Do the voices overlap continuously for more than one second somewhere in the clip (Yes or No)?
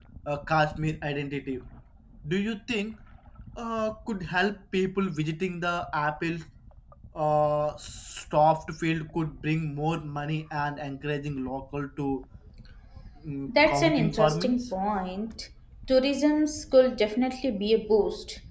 Yes